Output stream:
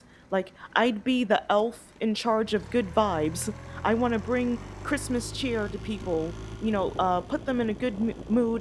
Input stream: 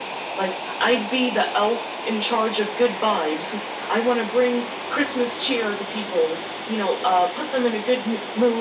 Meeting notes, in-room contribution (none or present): none